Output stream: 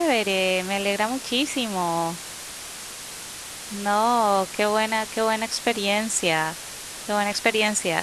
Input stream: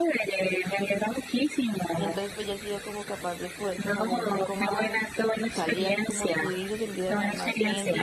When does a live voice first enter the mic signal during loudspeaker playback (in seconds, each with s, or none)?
1.9 s